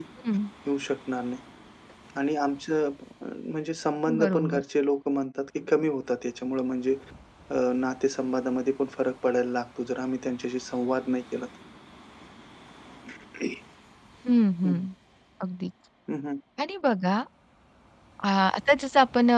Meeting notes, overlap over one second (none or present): none